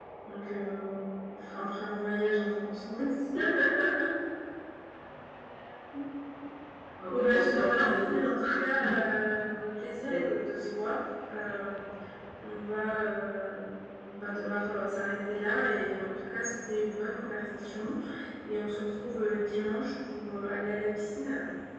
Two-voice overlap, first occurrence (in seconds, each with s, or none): 7.1 s